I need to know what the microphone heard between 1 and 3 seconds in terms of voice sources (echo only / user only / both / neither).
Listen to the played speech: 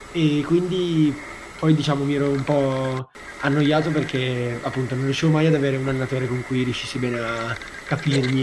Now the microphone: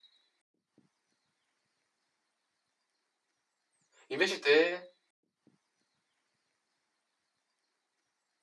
neither